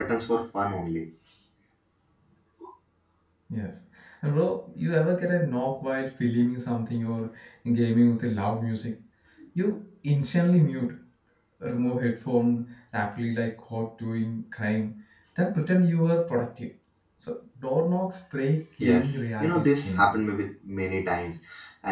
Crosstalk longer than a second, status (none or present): present